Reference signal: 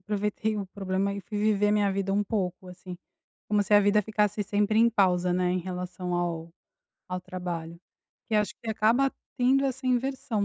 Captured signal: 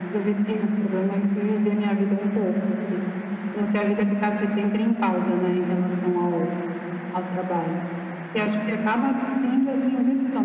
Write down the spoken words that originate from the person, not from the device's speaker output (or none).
none